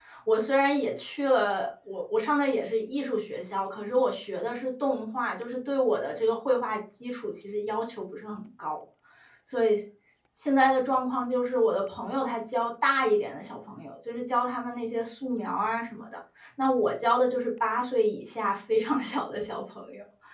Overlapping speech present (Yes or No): No